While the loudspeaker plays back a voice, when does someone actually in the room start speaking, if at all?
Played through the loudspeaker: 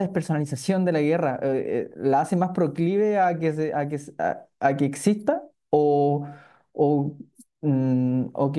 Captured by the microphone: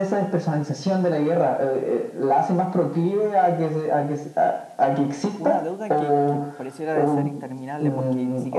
5.4 s

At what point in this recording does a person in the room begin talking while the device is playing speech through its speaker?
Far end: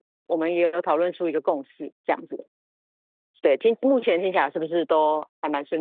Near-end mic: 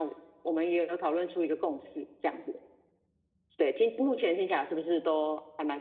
none

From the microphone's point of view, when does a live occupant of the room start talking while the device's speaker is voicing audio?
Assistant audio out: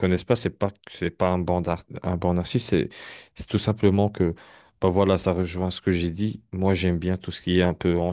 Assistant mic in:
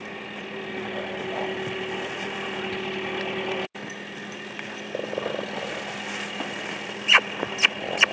none

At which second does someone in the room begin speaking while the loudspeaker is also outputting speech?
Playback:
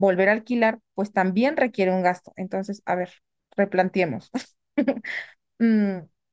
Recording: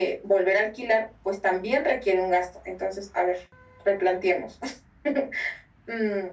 none

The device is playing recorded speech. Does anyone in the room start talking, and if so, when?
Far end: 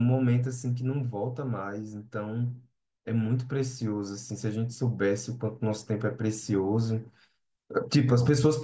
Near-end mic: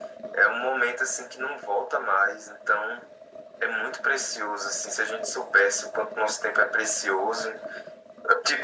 none

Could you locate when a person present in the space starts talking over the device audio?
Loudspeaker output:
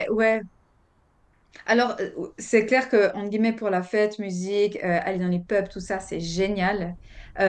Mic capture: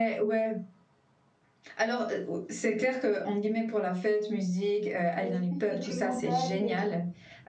5.1 s

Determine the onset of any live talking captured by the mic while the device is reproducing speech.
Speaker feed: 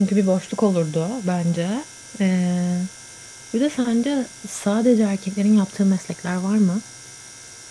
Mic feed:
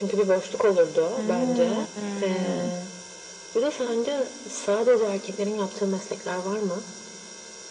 1.2 s

